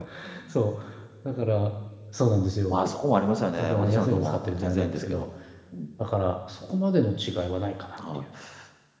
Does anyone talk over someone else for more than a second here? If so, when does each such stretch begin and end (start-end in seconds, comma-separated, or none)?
3.6-5.3